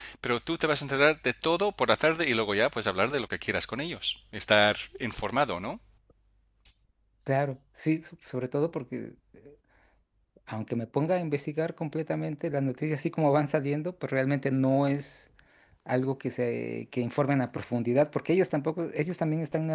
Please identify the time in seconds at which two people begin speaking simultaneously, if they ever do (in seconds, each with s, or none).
none